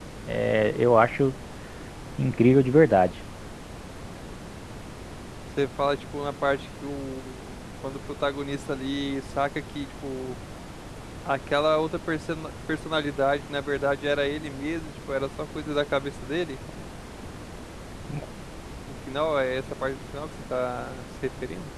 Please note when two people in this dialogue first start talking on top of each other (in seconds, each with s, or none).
none